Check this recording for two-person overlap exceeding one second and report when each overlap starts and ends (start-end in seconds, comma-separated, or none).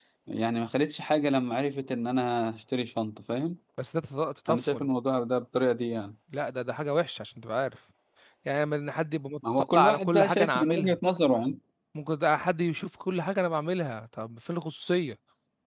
9.7-11.0